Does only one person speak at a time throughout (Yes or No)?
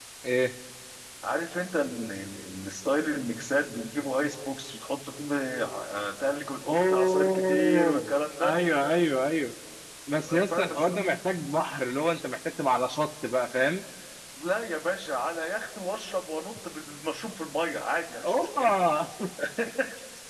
No